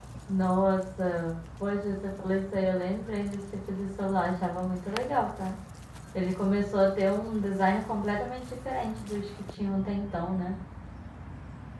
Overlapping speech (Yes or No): No